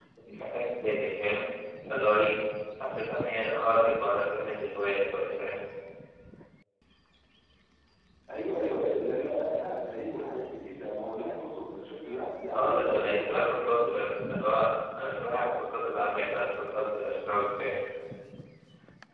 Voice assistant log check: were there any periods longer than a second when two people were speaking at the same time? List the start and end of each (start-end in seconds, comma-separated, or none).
12.5-13.7